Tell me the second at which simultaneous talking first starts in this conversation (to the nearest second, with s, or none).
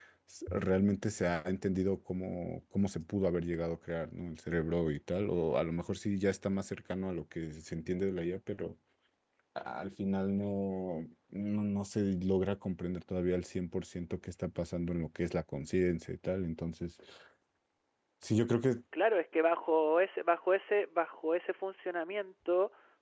none